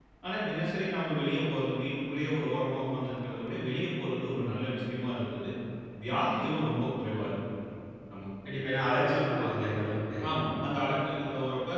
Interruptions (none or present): none